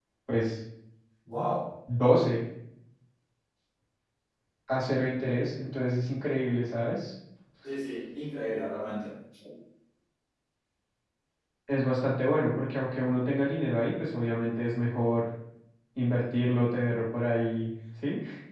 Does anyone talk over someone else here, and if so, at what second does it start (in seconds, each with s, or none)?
none